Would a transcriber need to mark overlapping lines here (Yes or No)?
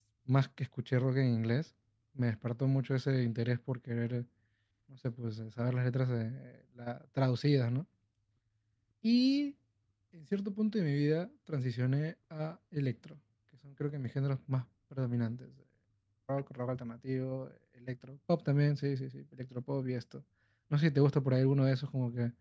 No